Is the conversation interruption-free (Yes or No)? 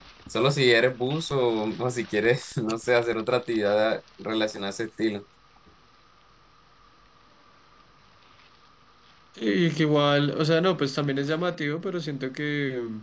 Yes